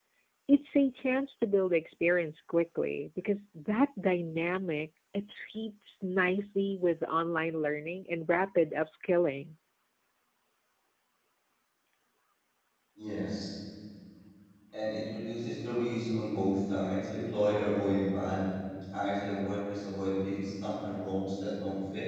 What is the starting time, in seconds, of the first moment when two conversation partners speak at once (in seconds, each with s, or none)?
none